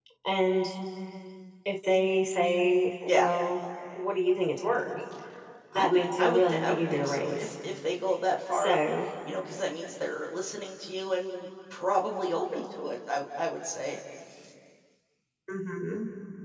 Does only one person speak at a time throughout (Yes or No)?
No